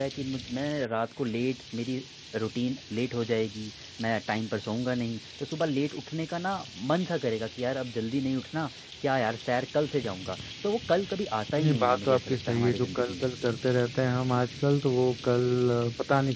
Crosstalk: present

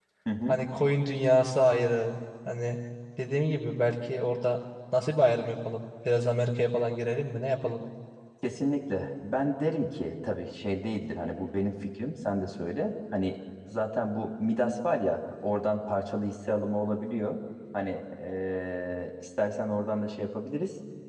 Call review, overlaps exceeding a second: none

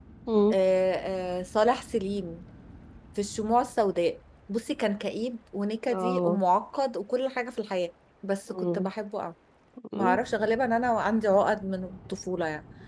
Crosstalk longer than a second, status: none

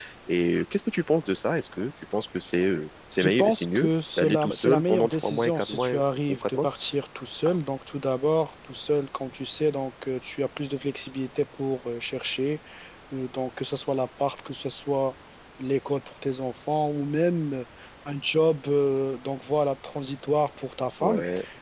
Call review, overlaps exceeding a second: present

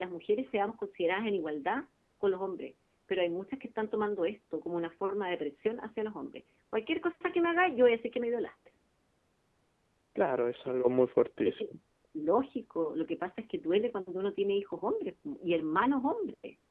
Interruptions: none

